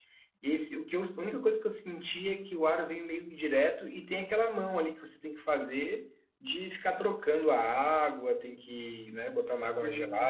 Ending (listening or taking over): taking over